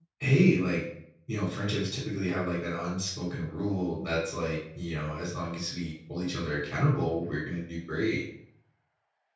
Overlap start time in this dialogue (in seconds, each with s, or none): none